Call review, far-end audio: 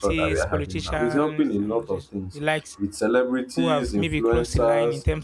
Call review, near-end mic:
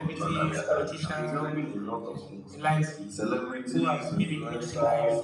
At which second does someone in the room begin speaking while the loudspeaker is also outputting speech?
none

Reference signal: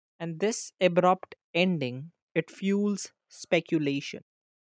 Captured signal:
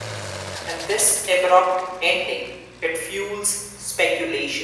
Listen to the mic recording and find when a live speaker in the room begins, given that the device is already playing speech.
none

